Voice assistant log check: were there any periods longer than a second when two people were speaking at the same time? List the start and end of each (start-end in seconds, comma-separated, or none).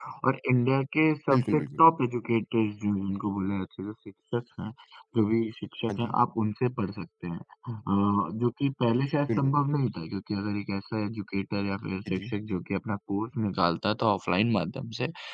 none